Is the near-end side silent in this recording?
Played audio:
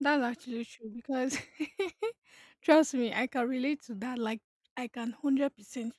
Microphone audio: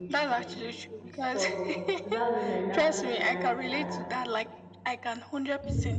No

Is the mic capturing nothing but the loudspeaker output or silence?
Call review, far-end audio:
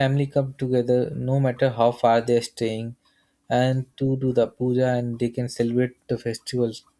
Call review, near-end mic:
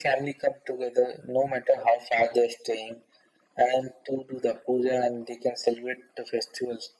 Yes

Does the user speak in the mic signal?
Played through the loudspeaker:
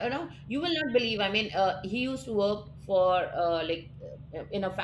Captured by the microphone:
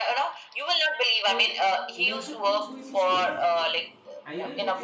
Yes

